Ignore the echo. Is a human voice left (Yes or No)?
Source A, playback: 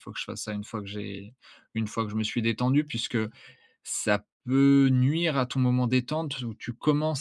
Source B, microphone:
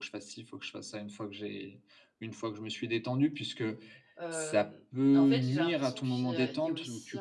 Yes